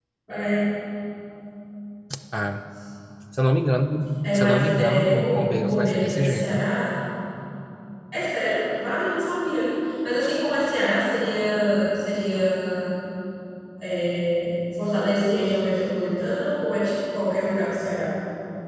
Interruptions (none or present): present